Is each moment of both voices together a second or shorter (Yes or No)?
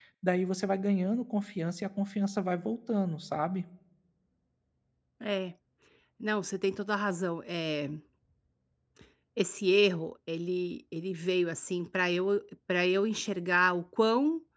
Yes